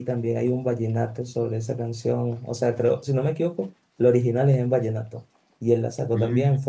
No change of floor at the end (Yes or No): Yes